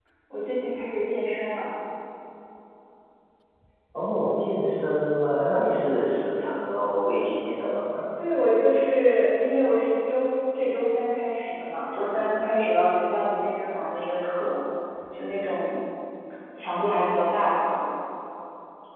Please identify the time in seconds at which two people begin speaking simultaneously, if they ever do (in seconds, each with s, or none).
none